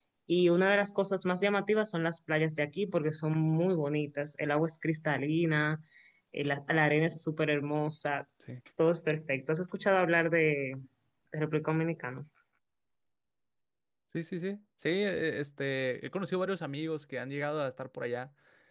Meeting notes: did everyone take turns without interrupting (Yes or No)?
Yes